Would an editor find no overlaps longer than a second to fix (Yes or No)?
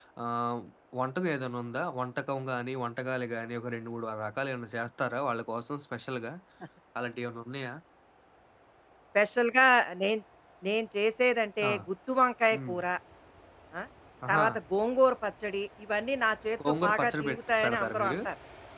No